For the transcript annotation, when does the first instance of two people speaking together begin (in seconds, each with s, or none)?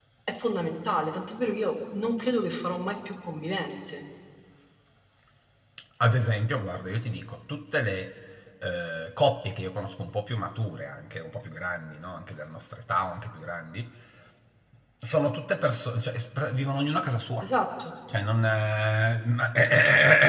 none